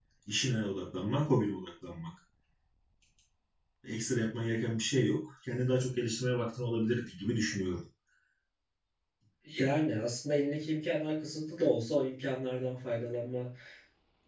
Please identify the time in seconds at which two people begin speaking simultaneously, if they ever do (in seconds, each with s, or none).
none